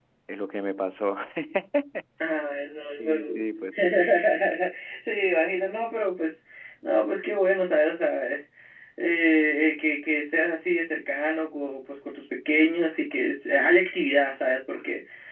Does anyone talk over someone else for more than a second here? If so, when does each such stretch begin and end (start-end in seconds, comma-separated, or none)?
none